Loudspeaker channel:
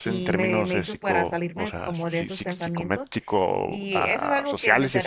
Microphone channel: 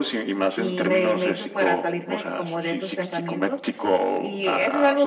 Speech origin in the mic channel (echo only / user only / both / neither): echo only